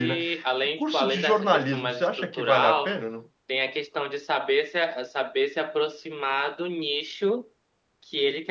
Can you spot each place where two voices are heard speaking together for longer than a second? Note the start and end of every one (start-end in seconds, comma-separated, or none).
0.8-2.9